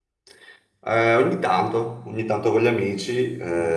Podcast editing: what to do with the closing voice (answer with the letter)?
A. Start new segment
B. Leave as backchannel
B